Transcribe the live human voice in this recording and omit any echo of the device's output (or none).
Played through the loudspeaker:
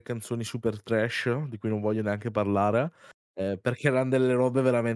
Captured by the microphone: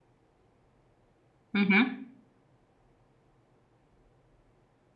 Mh-mh.